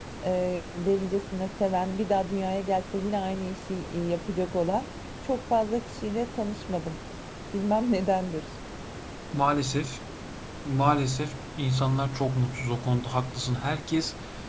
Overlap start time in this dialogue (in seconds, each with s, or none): none